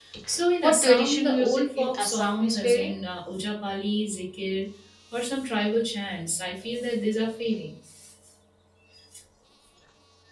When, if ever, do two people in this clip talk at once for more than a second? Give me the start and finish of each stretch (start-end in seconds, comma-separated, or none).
0.6-3.0